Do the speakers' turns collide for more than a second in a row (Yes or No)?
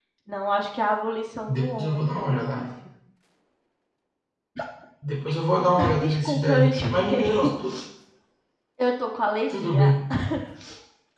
Yes